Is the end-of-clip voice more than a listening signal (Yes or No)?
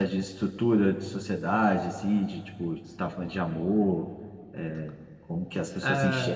Yes